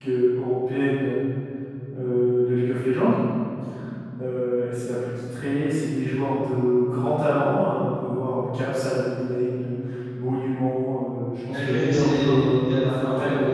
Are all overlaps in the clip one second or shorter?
No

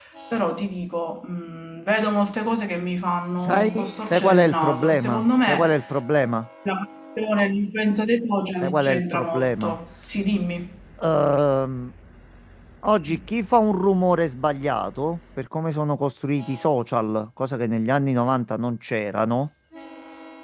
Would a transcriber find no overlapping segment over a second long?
No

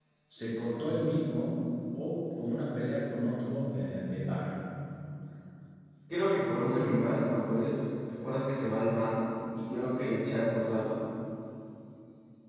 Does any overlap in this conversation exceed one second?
Yes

